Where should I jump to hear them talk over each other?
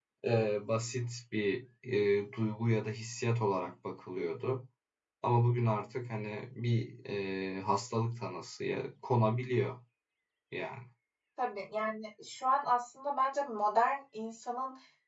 none

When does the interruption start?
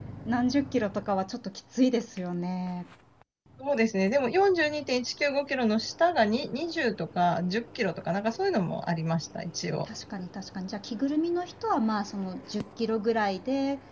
none

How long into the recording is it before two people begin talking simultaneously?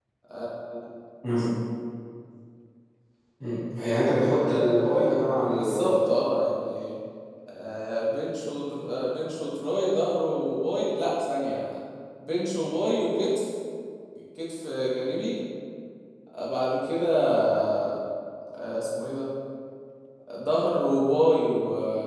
4.1 s

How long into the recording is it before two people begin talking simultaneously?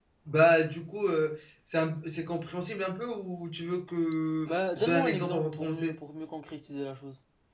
4.5 s

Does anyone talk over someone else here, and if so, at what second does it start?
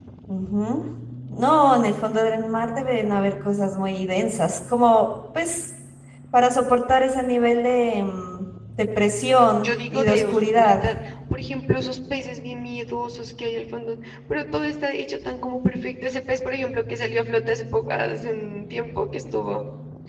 9.6 s

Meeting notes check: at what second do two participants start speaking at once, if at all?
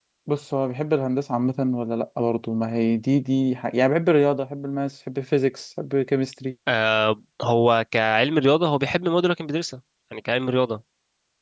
none

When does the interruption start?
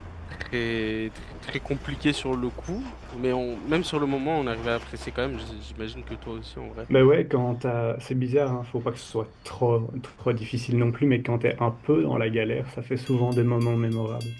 none

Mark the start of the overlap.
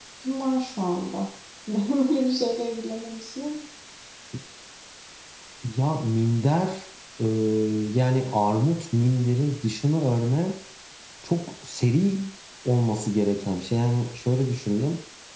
none

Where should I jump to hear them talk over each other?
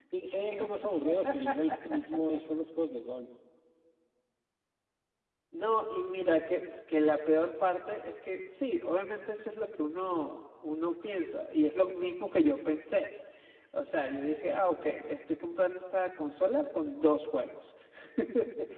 none

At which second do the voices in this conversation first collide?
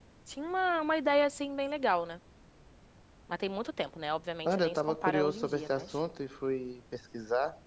4.4 s

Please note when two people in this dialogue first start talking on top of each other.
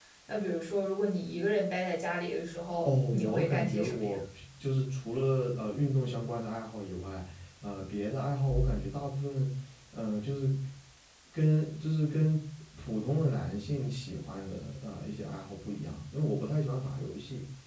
2.8 s

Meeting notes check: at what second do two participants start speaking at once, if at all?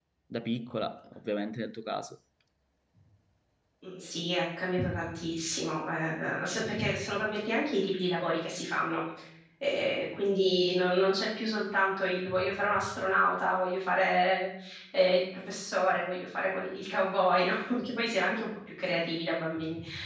none

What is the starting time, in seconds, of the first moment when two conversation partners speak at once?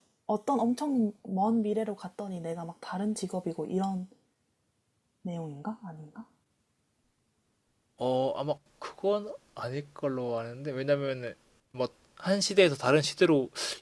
none

